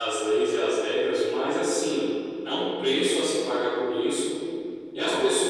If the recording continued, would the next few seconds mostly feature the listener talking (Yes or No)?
No